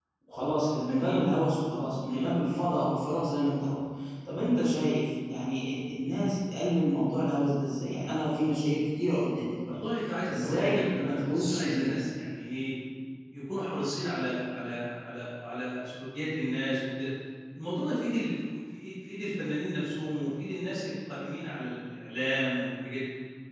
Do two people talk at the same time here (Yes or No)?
Yes